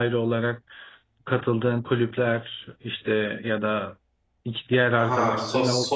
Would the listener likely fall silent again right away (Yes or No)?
No